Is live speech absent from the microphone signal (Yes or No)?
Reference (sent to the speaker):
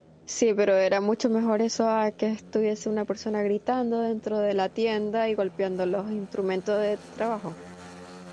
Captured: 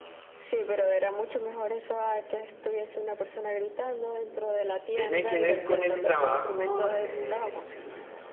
No